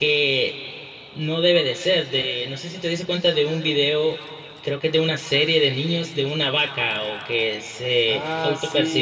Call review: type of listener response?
taking over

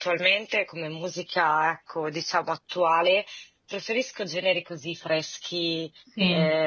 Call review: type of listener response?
listening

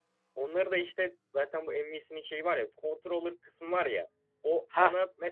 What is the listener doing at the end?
listening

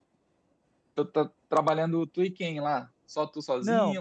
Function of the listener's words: taking over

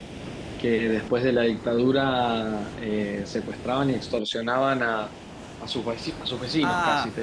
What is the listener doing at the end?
taking over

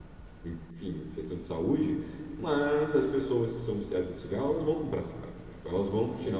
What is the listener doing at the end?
taking over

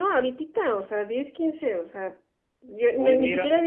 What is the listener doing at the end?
listening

